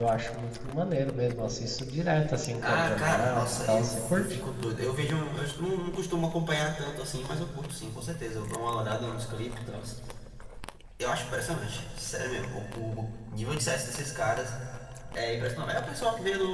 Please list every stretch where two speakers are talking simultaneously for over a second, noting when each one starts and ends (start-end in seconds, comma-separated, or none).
2.6-4.4